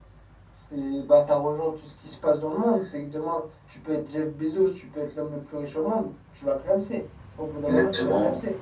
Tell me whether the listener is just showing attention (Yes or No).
No